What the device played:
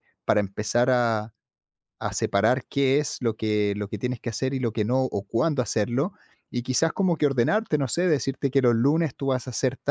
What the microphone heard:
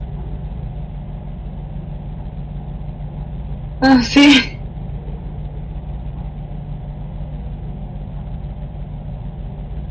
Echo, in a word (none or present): none